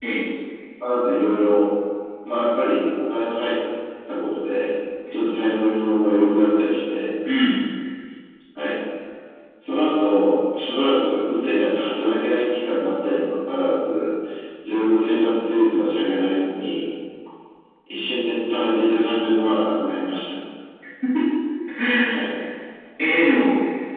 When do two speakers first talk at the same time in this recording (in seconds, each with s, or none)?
none